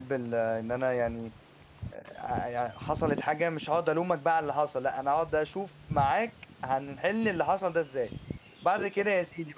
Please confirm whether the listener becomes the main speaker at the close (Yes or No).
No